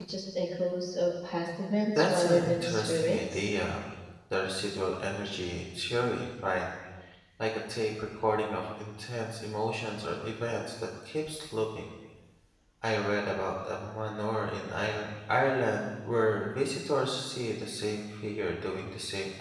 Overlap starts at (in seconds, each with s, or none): 1.9 s